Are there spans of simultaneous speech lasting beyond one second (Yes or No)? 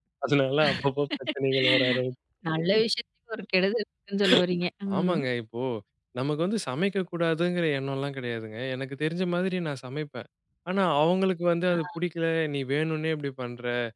No